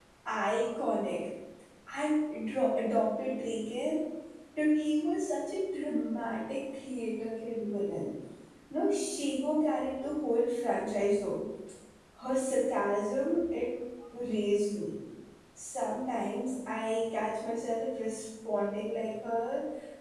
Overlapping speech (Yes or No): No